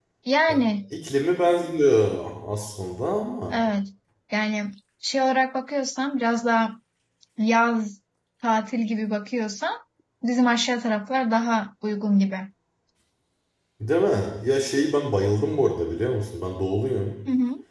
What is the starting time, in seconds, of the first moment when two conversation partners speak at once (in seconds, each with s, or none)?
none